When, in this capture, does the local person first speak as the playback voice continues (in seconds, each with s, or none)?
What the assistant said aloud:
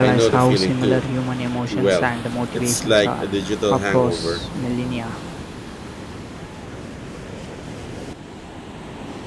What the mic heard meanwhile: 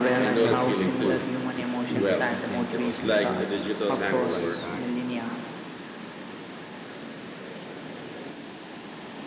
0.4 s